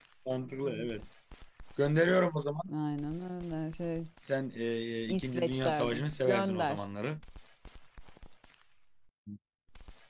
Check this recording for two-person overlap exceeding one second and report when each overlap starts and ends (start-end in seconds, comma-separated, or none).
5.1-6.8